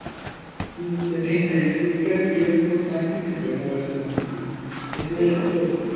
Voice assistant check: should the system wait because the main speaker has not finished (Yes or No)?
Yes